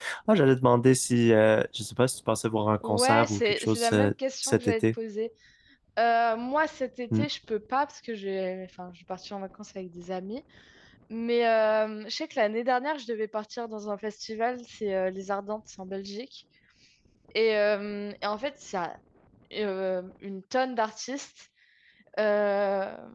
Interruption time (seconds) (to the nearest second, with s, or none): 3 s